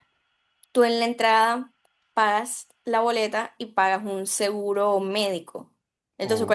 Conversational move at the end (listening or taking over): listening